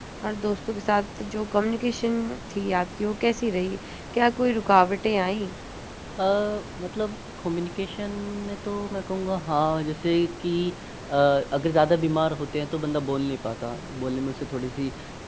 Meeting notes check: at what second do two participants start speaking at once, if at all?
none

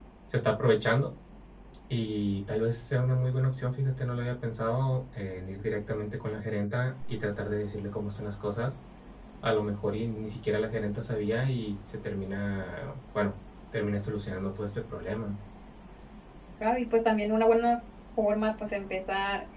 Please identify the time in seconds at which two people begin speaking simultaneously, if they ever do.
none

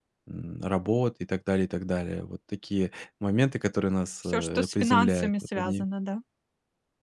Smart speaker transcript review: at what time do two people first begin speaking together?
4.2 s

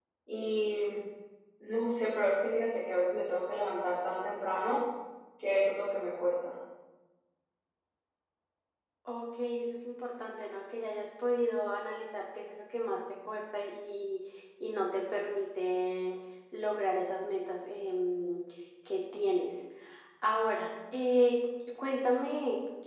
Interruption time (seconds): none

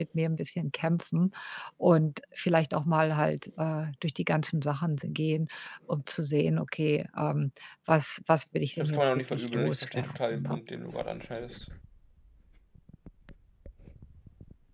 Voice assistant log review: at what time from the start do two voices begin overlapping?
8.8 s

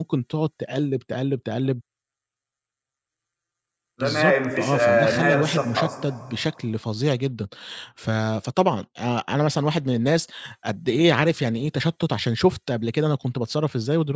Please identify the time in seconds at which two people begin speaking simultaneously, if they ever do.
4.0 s

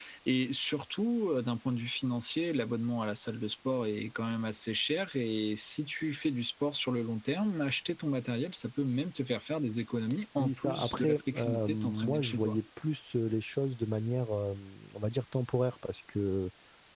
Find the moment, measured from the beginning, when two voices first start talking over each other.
10.4 s

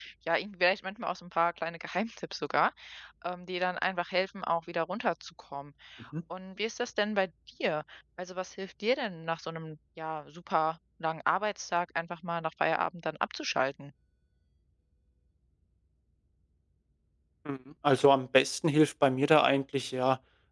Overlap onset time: none

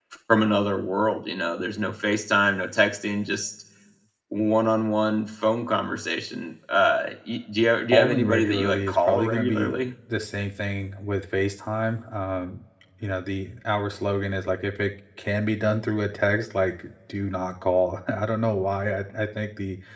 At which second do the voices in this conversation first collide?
7.9 s

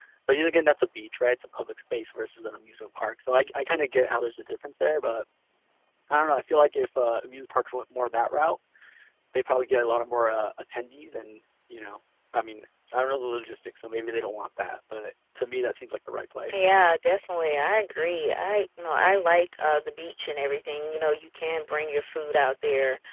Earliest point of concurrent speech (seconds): none

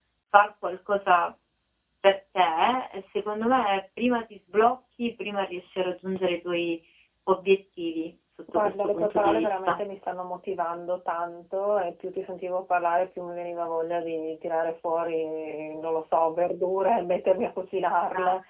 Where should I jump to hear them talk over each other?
8.5 s

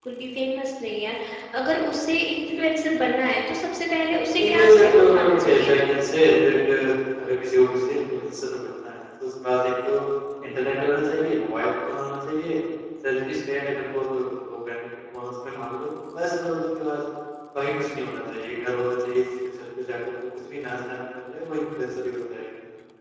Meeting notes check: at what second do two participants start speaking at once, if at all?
4.3 s

